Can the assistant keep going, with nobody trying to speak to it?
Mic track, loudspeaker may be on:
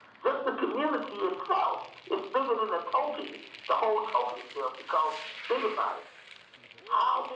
Yes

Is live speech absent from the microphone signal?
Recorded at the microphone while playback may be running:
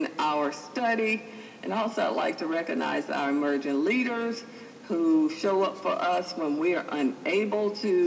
Yes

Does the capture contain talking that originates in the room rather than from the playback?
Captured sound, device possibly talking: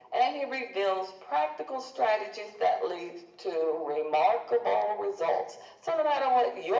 No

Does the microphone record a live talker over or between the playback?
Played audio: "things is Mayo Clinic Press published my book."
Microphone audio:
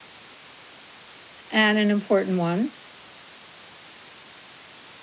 Yes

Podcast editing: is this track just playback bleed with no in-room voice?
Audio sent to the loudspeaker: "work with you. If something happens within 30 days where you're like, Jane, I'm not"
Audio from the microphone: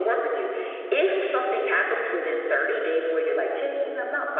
Yes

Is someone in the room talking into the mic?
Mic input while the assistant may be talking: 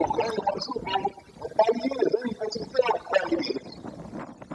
No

